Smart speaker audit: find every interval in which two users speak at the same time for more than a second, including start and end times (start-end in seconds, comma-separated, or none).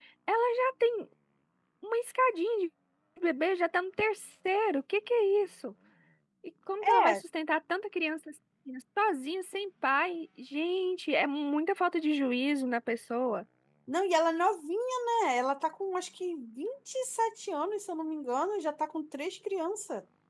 none